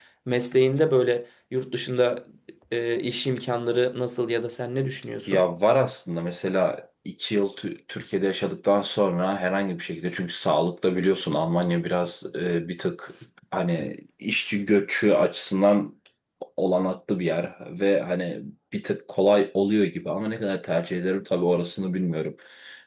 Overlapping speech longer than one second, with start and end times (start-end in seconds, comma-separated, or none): none